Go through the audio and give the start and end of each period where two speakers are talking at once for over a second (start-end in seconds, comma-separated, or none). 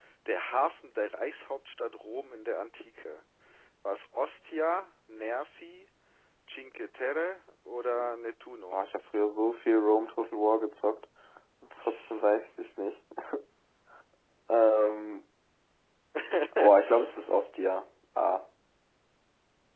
none